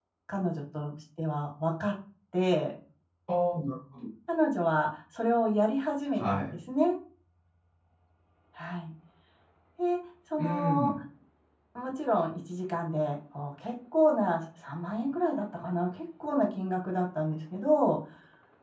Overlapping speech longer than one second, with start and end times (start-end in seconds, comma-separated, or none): none